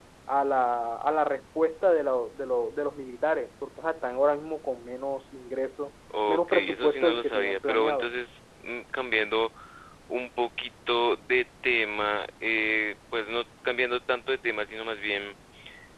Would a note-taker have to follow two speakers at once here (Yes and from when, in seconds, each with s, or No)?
Yes, from 6.1 s